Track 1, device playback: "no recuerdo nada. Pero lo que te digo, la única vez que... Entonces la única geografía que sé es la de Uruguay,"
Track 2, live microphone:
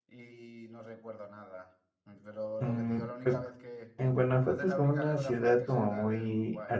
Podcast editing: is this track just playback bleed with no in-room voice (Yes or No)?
No